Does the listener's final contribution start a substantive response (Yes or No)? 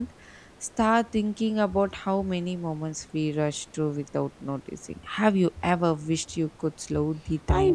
Yes